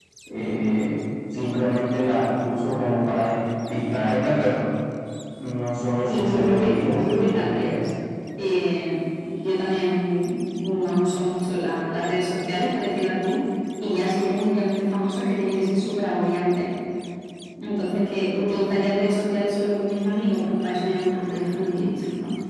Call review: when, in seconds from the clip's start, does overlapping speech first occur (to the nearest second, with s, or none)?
6 s